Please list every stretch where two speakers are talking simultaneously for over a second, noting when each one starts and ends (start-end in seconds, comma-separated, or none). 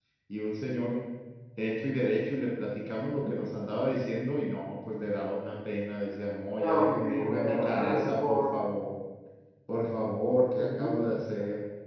6.6-8.4